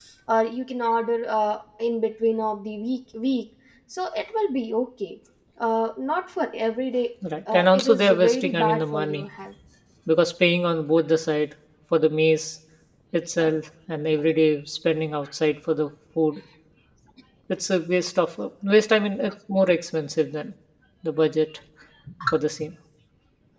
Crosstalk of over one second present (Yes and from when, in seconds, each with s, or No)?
Yes, from 7.5 s